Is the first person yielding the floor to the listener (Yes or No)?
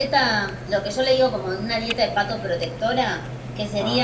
No